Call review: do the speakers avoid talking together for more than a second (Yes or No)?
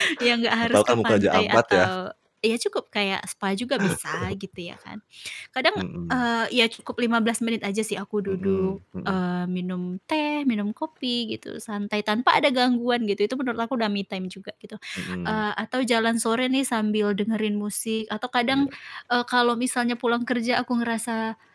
No